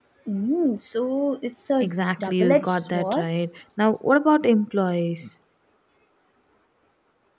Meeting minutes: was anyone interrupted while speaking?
Yes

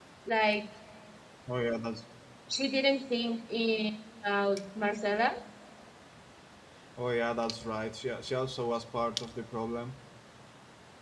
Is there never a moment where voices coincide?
Yes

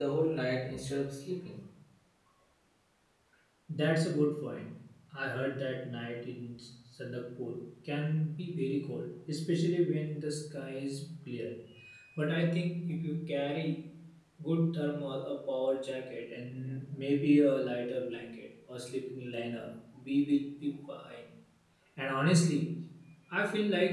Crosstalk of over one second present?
No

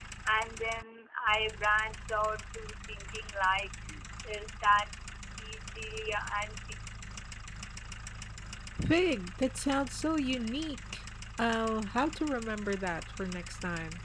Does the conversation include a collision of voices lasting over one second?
No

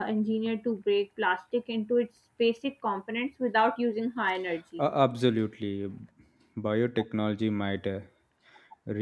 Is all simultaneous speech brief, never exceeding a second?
Yes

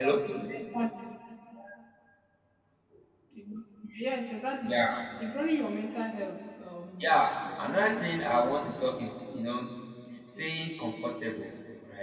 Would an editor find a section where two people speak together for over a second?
Yes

